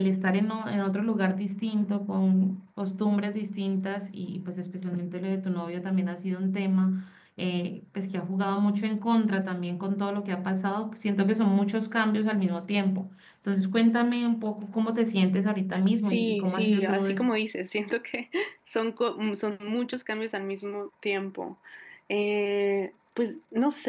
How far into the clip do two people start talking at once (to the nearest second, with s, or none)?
16 s